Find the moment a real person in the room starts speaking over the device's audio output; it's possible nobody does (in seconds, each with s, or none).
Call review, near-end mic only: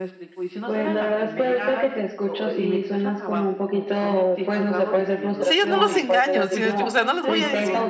5.4 s